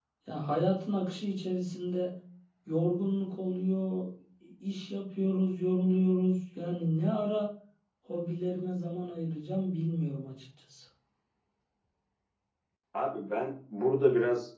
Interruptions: none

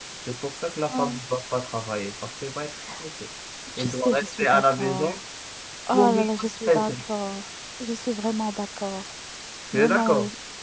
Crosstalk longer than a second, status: present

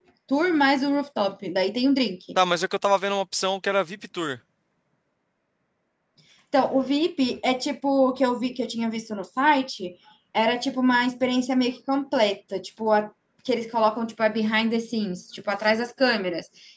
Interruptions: none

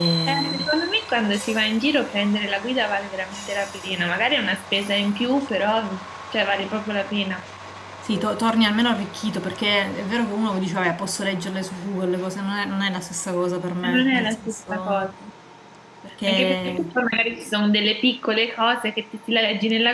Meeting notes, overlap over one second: present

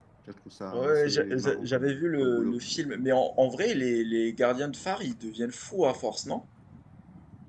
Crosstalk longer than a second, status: present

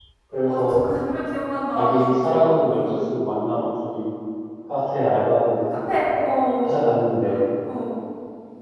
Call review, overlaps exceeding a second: present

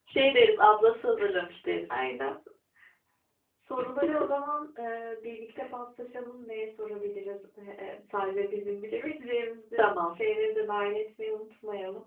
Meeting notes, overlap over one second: none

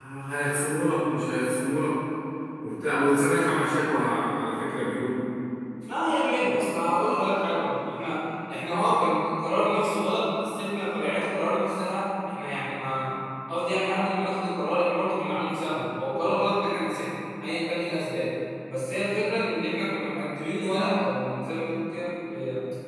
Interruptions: none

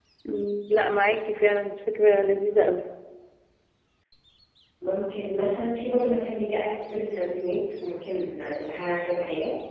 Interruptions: none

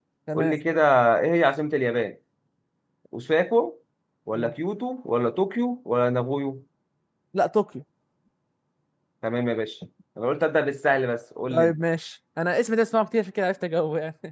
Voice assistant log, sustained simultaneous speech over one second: none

